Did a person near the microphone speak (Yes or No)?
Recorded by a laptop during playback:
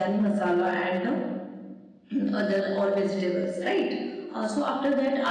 Yes